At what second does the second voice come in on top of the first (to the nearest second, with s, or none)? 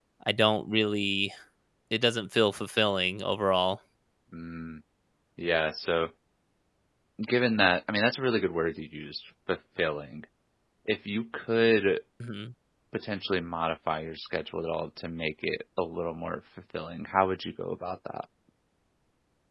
none